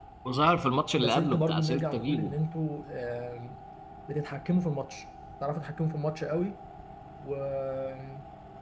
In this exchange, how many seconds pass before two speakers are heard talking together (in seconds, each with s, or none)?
1.0 s